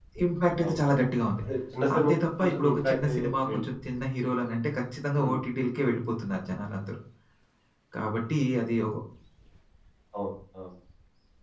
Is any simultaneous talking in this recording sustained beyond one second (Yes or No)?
Yes